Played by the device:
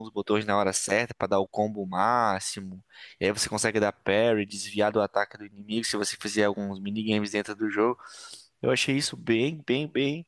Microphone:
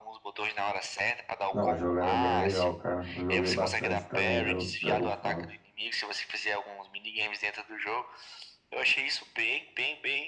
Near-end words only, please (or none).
Não, o jogo era bem legal, cara. Eu joguei bastante também pelo Battlefront.